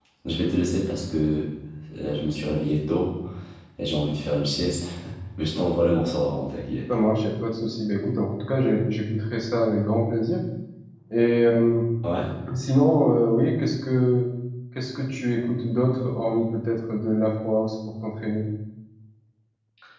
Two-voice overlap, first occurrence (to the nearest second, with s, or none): none